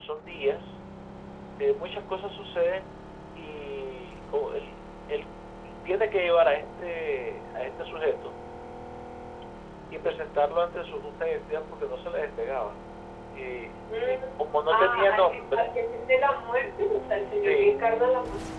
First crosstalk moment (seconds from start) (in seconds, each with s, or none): 14.0 s